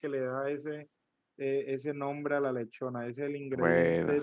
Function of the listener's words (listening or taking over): listening